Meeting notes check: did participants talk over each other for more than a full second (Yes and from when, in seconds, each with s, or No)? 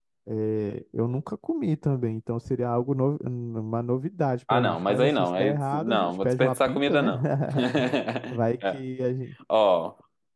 Yes, from 4.5 s